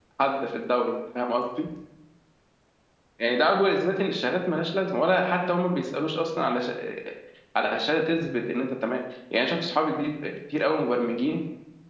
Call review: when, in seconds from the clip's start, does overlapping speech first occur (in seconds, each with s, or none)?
none